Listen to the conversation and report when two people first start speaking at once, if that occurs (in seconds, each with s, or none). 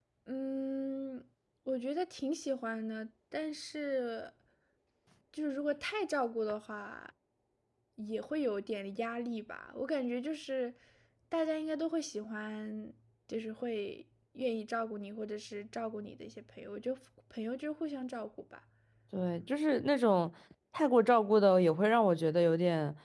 none